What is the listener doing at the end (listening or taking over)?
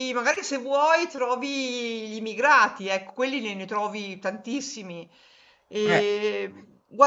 listening